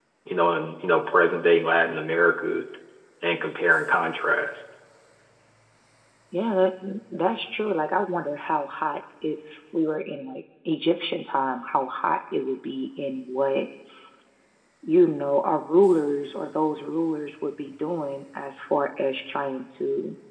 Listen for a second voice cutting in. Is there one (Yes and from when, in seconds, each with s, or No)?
No